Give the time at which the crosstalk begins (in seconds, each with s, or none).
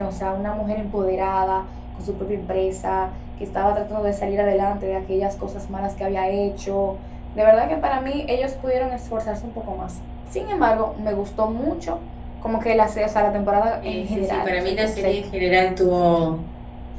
13.8 s